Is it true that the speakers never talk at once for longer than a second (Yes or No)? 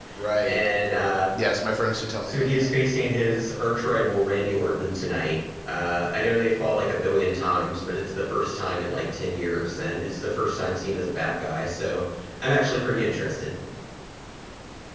Yes